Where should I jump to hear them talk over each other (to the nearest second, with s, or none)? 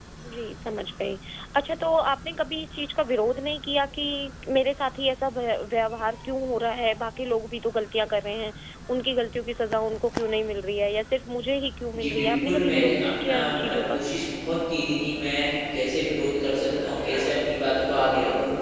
12 s